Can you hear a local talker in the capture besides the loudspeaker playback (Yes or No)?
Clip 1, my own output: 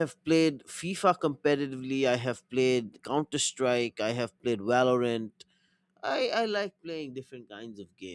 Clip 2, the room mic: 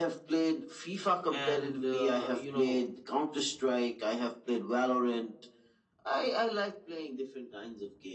Yes